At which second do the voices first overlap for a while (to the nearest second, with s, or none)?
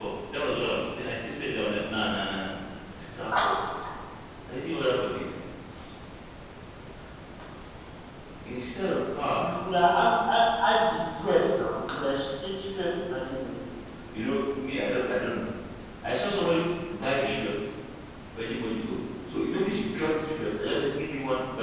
none